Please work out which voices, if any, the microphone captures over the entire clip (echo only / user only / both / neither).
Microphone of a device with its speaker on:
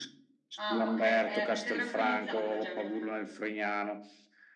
both